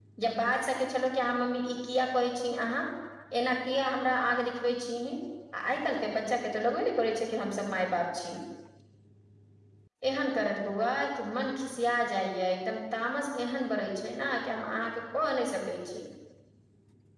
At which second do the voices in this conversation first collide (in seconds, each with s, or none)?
none